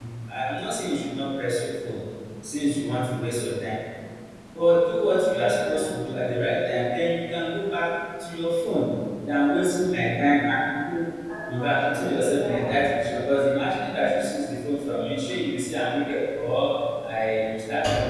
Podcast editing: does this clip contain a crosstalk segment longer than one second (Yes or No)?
Yes